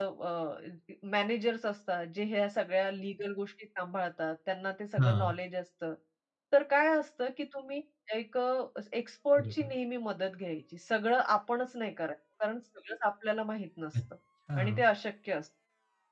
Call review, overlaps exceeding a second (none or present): none